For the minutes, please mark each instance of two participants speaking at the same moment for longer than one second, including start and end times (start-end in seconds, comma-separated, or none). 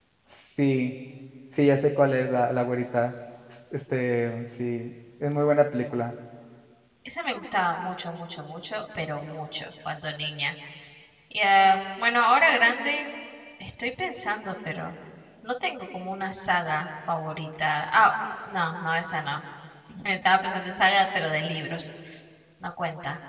none